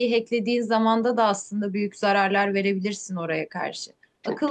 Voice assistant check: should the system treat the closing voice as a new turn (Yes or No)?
No